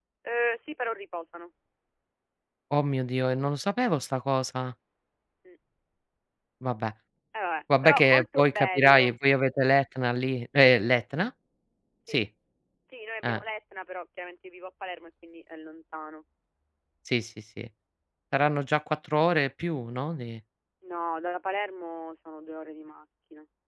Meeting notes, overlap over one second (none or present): present